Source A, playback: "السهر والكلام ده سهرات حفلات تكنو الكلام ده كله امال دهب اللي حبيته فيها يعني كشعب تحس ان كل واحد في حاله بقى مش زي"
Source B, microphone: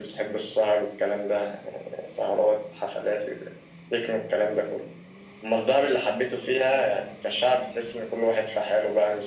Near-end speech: none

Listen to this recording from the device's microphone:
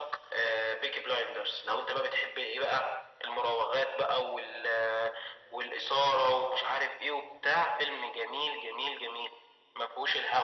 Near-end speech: none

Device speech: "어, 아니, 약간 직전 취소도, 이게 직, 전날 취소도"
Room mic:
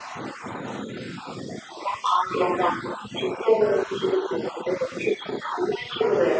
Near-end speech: none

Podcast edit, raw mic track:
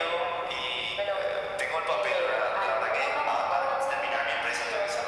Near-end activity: none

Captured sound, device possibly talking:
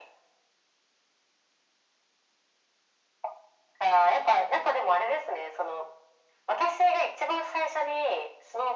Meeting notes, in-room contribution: none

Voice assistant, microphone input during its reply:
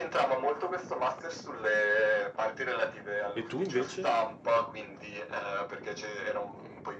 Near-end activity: present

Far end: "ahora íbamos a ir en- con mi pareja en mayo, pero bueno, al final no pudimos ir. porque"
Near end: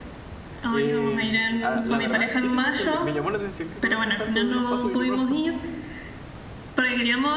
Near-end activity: present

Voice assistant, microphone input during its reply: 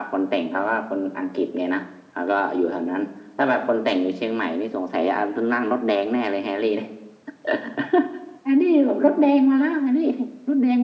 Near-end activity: none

